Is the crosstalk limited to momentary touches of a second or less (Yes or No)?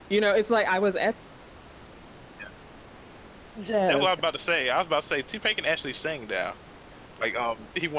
Yes